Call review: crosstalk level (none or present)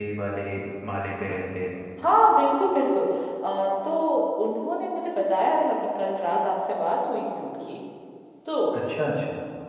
none